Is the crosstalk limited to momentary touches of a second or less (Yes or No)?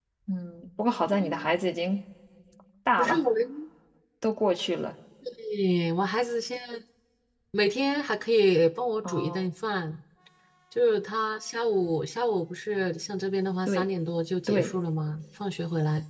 Yes